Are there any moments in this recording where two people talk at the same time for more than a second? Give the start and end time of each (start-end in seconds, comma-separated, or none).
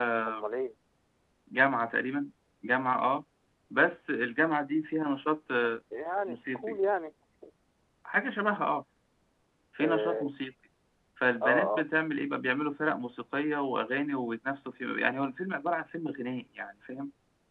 none